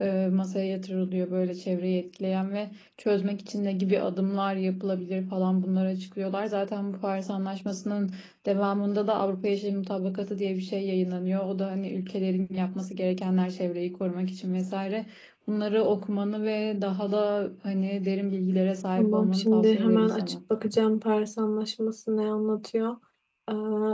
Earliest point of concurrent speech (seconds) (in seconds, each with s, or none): 19.0 s